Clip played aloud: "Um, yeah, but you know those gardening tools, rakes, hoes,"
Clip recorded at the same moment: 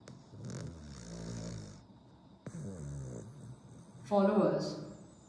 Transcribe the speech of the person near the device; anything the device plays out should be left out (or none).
followers.